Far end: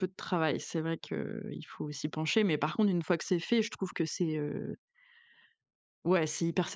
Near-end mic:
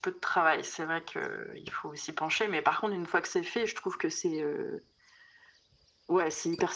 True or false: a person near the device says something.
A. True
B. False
B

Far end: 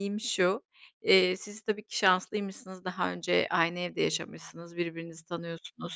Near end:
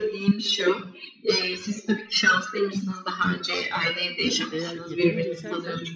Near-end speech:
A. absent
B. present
B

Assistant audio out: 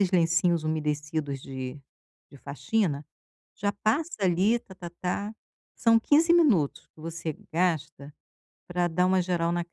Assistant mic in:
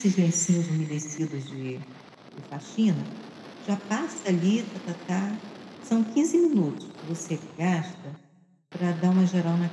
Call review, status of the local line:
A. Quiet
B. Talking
A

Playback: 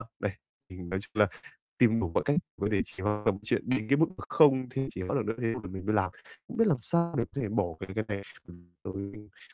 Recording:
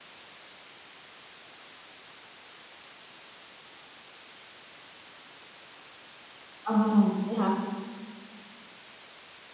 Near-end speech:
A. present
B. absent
A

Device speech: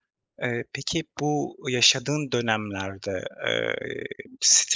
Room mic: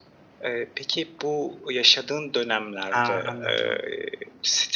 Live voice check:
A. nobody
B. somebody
B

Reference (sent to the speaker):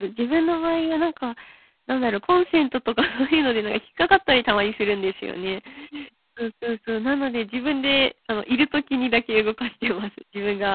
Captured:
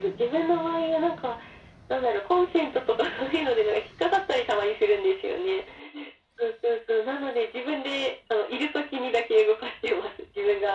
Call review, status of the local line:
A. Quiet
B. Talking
A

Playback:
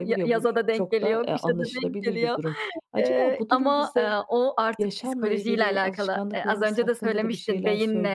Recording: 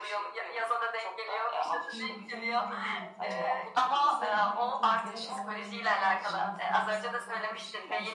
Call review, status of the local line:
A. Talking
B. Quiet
A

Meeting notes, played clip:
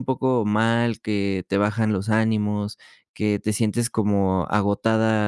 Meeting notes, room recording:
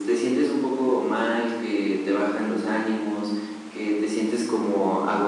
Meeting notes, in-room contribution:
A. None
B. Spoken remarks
A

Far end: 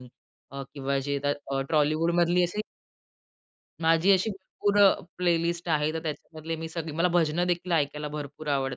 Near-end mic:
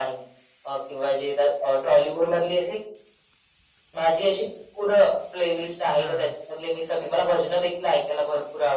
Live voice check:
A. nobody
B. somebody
B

